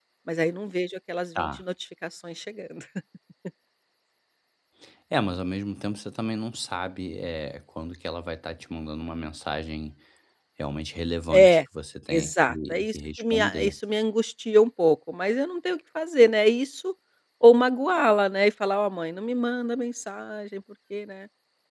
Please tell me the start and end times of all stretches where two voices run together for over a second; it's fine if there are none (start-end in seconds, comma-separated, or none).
12.1-13.8